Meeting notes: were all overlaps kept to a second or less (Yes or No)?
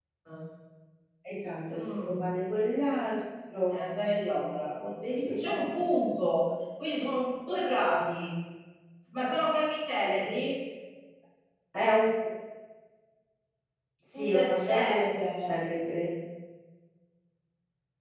No